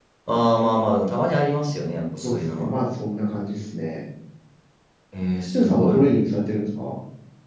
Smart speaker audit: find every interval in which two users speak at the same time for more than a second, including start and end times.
none

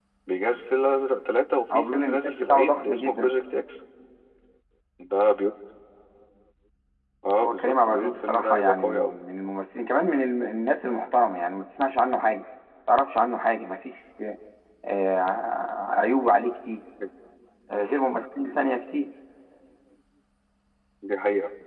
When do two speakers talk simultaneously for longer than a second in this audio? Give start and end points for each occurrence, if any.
1.7-3.3, 7.4-9.2

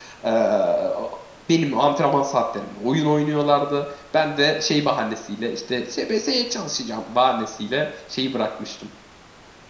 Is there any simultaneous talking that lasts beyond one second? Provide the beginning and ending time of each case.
none

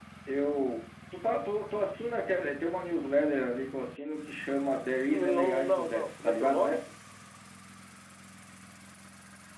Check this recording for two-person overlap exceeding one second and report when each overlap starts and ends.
5.0-6.8

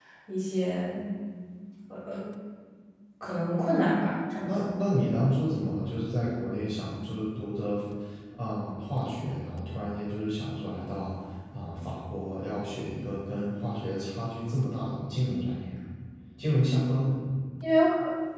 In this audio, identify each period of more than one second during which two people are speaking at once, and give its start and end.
none

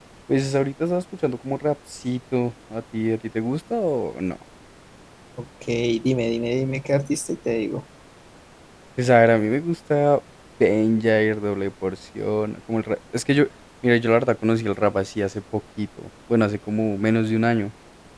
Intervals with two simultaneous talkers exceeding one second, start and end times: none

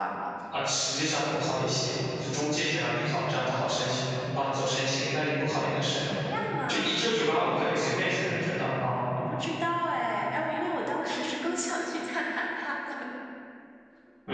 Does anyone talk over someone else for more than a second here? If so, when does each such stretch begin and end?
none

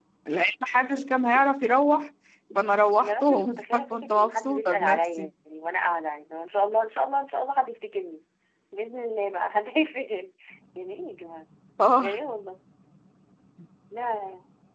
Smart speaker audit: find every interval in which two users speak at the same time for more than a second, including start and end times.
3.0-5.3

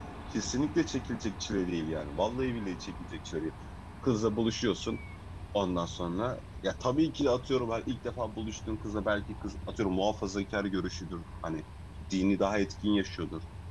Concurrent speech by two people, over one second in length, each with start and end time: none

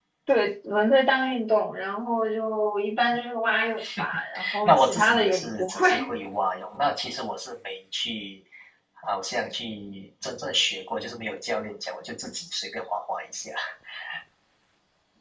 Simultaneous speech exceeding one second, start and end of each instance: 4.6-5.9

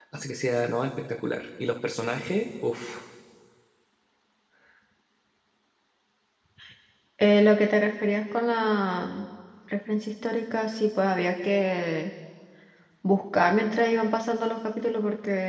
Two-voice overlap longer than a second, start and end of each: none

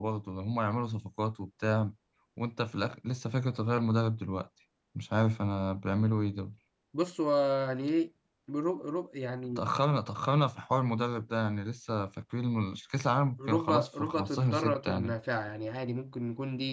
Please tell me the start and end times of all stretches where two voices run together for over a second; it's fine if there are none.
13.5-15.2

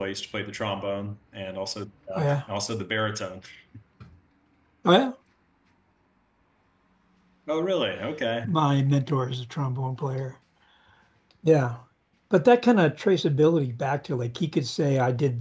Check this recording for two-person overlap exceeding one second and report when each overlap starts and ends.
none

